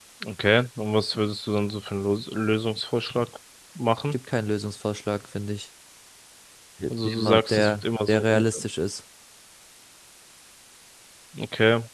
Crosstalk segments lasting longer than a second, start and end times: 6.9-8.6

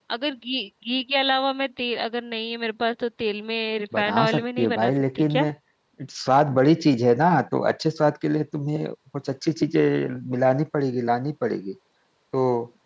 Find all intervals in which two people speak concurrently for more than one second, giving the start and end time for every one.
4.0-5.5

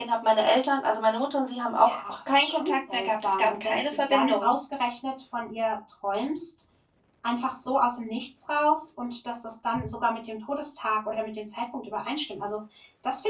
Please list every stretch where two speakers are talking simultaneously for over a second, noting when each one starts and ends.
1.8-4.5

